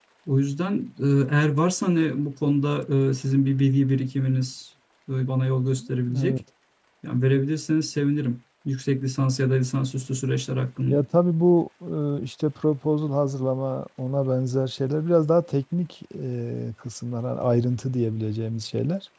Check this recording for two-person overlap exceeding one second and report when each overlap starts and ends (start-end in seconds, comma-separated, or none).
none